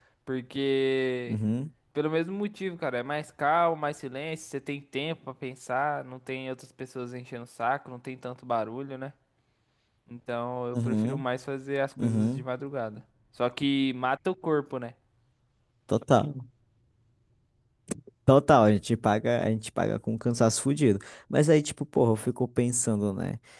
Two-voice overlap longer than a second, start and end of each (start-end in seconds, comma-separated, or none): none